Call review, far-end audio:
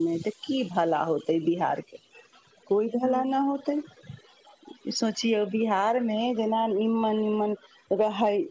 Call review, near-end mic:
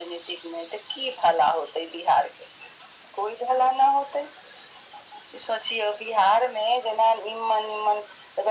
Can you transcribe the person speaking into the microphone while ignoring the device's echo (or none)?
none